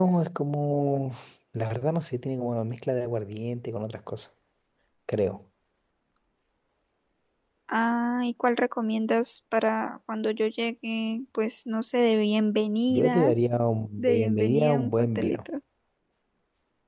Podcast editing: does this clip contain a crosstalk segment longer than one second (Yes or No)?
Yes